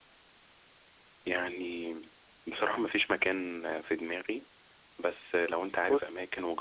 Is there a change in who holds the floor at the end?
No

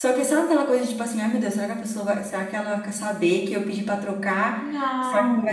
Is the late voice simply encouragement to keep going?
Yes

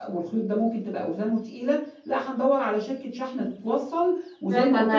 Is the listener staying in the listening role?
No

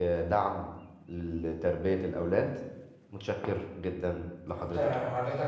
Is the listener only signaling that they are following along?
No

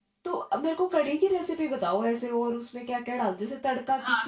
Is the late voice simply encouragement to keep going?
No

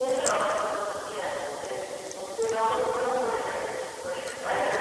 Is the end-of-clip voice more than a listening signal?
Yes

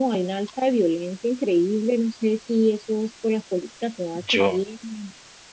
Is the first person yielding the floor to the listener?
No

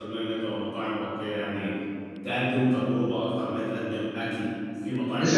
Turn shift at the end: Yes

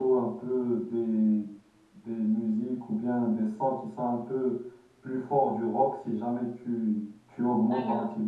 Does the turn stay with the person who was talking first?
Yes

